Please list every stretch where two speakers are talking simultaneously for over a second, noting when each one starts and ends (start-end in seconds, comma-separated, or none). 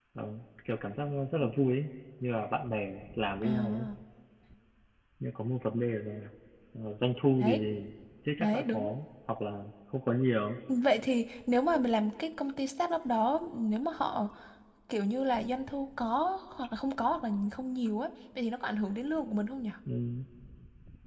none